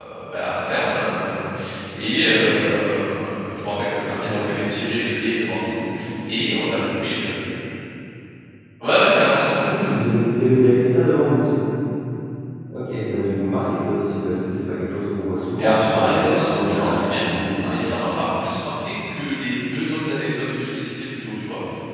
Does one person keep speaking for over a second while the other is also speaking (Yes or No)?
Yes